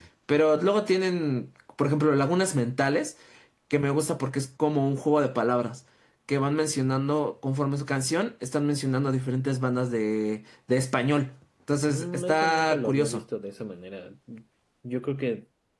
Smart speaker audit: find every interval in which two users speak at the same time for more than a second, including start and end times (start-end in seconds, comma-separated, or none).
11.9-13.2